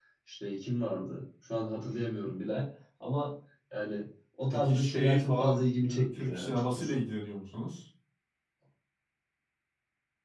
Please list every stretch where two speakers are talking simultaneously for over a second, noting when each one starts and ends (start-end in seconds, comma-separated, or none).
4.5-7.0